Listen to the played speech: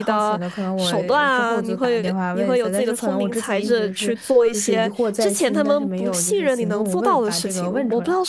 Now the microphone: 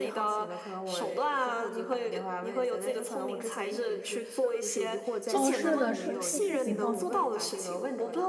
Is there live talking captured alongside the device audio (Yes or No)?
Yes